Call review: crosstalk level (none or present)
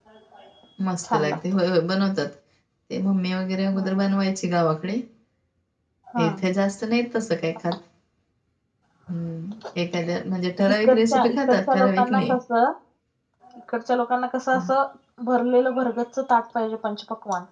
present